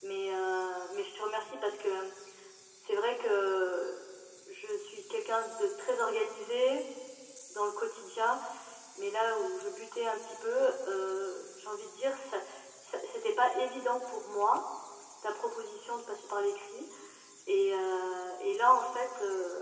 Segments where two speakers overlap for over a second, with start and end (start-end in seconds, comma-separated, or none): none